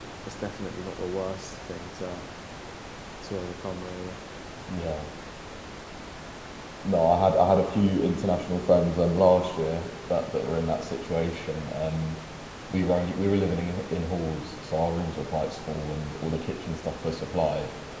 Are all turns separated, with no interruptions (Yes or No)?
Yes